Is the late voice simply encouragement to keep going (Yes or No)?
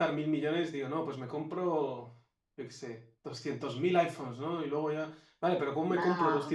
Yes